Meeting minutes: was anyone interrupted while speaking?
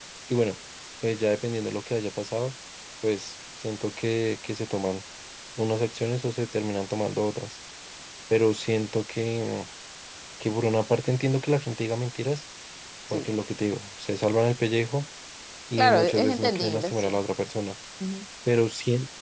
Yes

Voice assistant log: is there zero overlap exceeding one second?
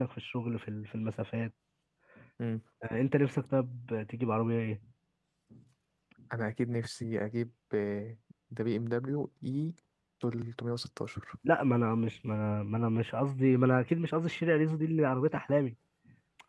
Yes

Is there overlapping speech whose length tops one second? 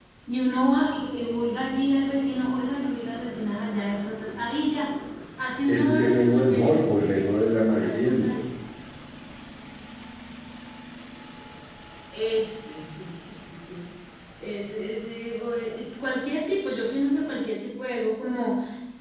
Yes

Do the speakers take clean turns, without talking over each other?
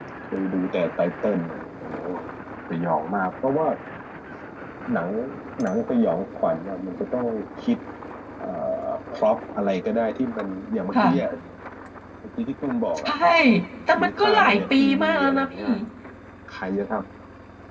No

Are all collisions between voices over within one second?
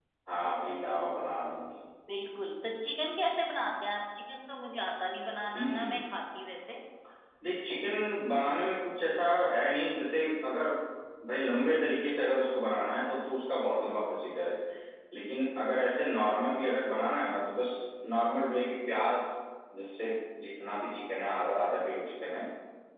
Yes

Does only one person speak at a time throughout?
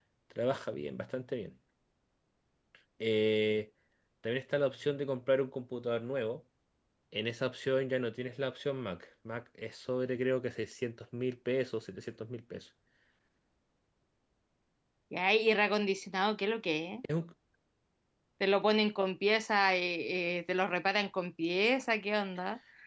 Yes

